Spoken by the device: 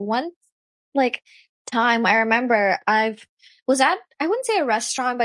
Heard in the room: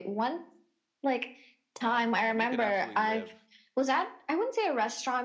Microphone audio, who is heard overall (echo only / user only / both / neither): both